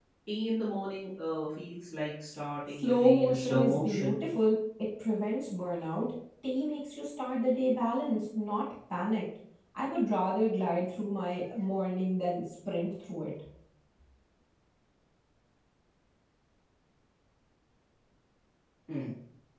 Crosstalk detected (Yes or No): Yes